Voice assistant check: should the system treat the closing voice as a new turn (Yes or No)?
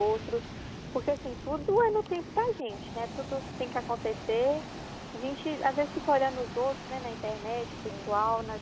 No